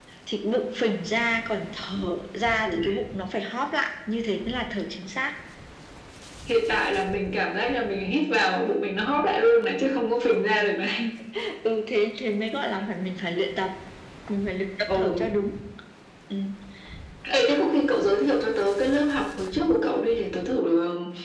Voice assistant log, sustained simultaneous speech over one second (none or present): none